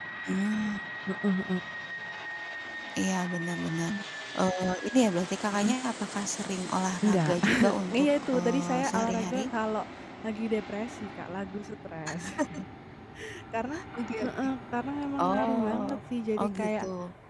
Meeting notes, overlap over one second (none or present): present